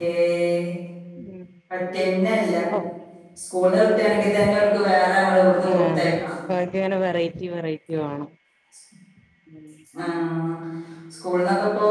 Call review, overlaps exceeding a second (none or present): none